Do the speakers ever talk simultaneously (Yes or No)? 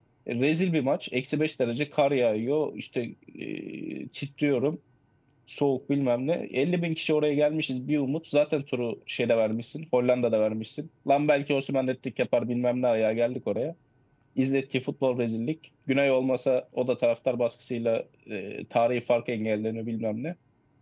No